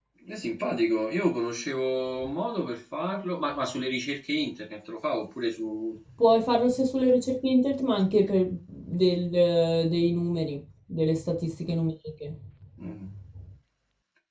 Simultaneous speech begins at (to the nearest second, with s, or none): none